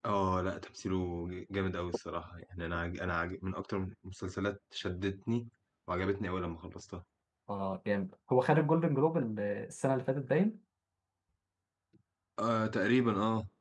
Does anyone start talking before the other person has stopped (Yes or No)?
No